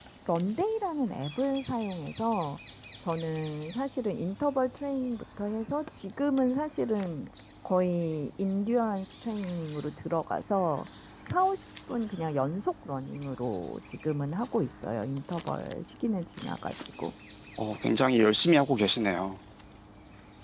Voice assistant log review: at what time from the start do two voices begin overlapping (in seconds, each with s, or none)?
none